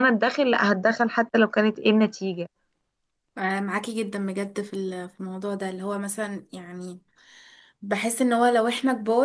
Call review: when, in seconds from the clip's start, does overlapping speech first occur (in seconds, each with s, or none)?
none